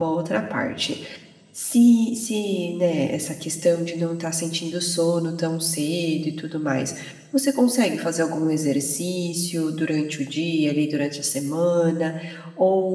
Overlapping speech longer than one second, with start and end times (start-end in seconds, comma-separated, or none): none